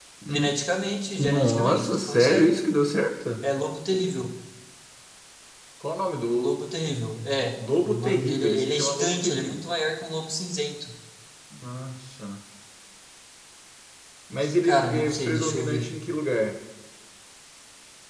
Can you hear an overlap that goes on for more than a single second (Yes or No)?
Yes